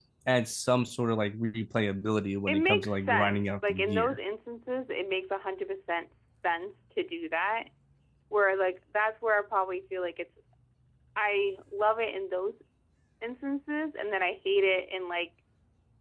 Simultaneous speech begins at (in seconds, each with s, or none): 2.5 s